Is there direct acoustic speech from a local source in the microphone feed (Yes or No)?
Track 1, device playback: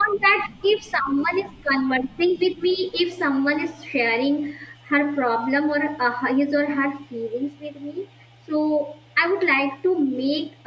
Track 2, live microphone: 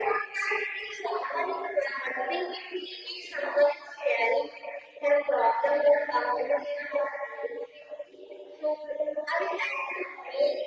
No